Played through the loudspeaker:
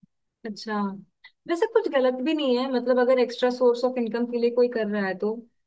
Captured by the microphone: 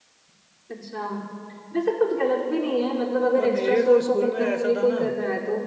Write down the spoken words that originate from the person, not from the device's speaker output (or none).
और मेरे तो स्कूल में ऐसा था ना